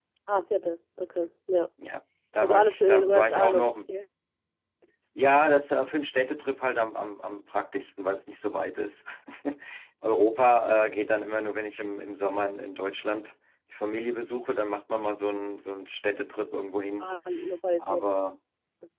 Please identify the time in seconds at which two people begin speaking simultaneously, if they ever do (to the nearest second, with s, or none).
2 s